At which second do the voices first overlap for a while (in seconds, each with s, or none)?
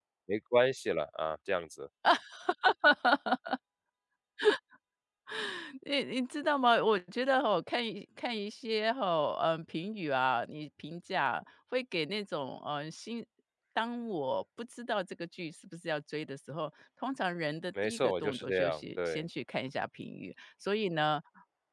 17.8 s